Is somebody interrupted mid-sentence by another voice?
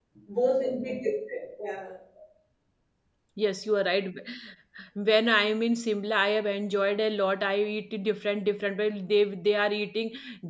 No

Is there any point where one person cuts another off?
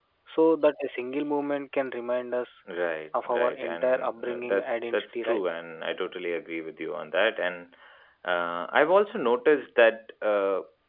Yes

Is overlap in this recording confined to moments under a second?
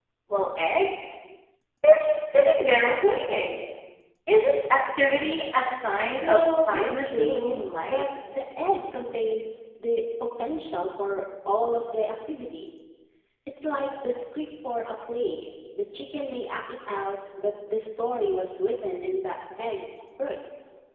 No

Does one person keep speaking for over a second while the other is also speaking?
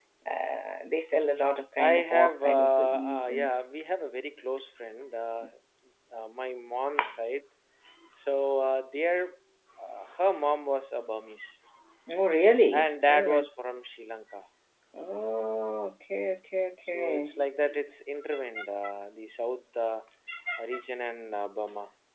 Yes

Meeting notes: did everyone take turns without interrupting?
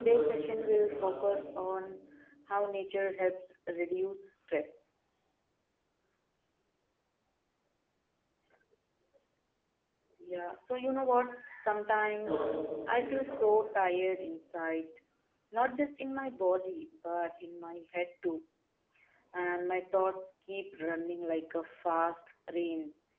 No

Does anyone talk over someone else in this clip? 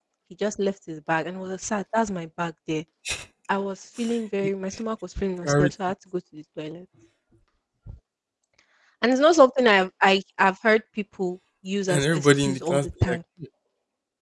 Yes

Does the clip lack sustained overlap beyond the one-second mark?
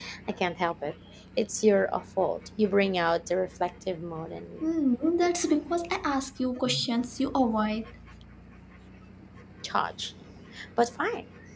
Yes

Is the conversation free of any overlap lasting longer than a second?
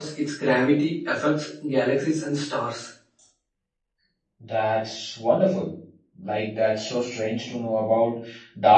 Yes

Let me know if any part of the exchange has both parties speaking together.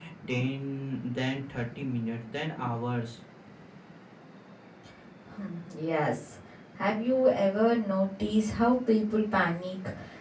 No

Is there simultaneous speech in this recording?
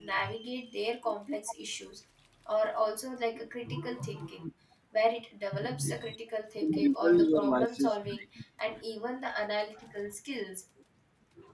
Yes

